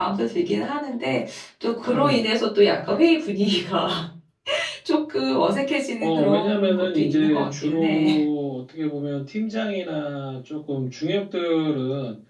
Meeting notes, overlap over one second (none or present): present